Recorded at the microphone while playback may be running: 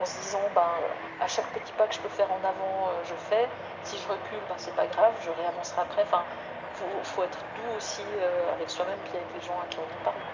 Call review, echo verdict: present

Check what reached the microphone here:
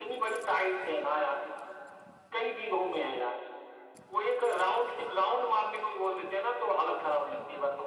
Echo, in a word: present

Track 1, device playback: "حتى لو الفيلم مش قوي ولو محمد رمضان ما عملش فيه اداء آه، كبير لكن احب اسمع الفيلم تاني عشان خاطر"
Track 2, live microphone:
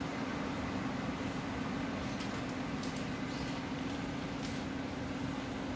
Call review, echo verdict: none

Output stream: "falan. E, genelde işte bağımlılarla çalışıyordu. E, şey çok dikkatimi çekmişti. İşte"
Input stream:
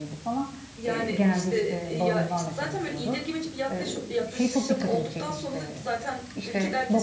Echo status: present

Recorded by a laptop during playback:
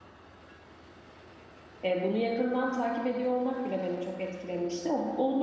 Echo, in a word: none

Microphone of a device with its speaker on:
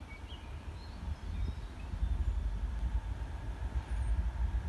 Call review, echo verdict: none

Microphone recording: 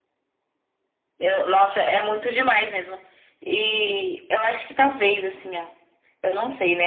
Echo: present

